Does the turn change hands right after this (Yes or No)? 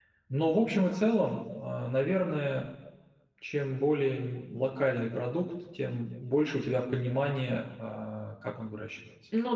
Yes